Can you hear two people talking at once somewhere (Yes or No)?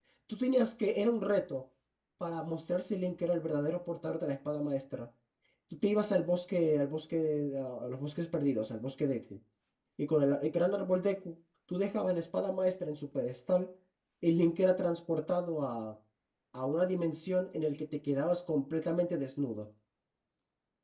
No